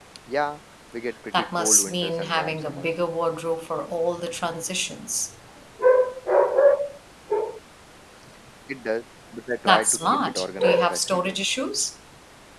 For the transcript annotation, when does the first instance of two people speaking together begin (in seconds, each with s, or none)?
1.3 s